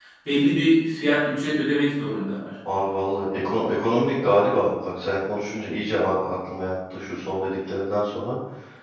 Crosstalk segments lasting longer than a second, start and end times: none

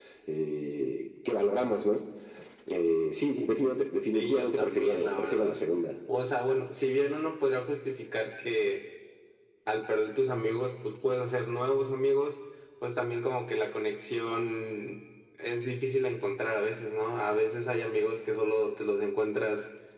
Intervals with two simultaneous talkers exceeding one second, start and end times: 4.1-5.6

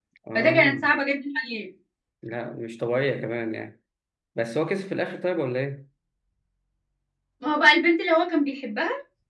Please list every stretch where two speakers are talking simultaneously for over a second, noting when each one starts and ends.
none

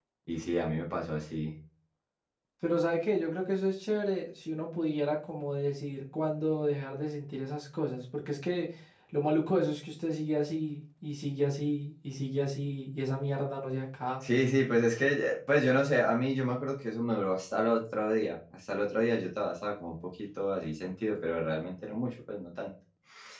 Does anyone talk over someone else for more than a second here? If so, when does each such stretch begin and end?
none

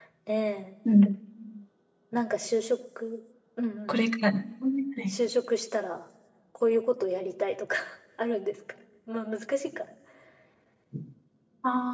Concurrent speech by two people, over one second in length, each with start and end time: none

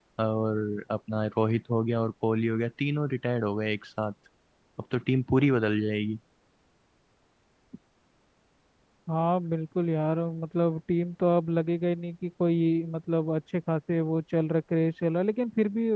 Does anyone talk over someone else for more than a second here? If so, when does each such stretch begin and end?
none

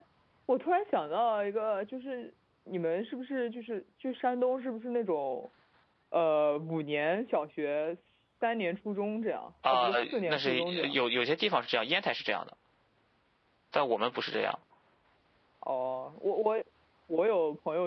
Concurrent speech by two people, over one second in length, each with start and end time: 9.7-11.0

